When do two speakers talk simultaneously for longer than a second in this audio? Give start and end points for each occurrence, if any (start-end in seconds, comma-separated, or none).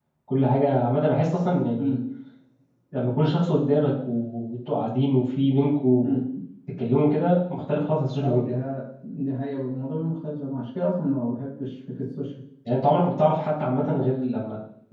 none